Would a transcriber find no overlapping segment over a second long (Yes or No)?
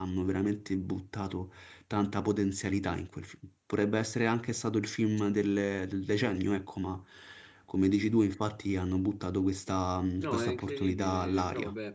No